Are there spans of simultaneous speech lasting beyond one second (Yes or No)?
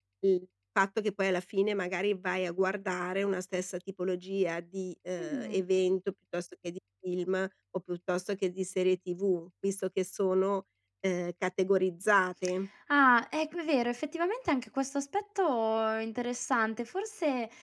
No